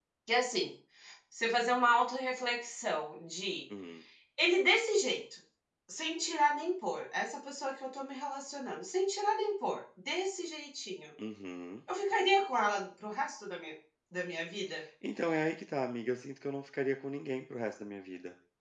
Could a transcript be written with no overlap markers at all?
Yes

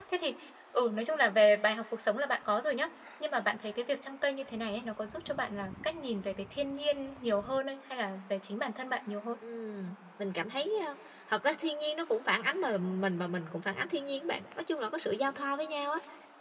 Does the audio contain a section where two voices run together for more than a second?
No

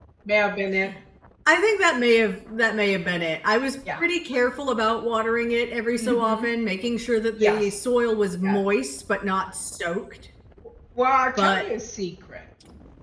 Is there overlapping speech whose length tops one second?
No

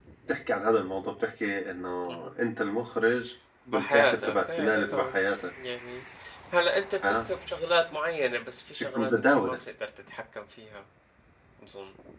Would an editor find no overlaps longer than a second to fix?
No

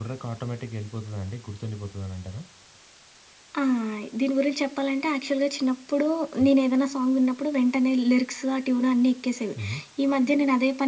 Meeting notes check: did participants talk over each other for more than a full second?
No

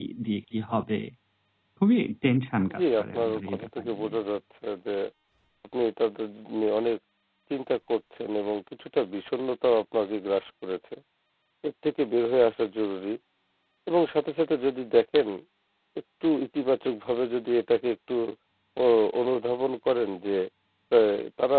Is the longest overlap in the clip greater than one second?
Yes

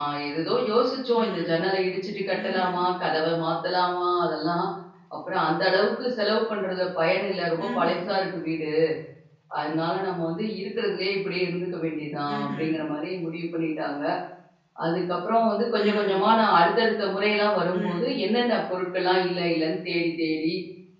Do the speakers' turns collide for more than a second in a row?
No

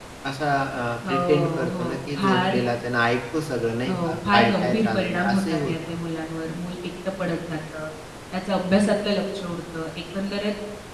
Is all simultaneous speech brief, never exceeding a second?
No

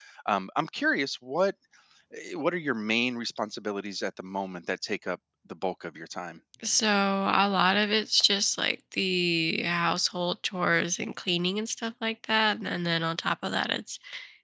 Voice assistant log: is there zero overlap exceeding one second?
Yes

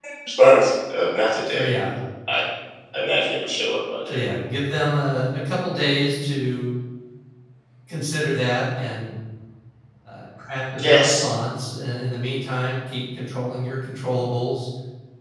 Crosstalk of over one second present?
No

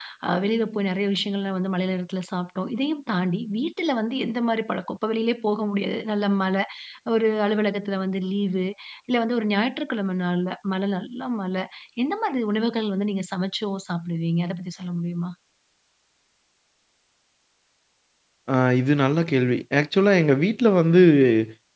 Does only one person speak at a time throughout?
Yes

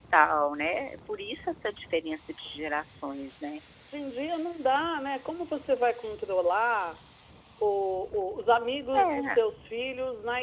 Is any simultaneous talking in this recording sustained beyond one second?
No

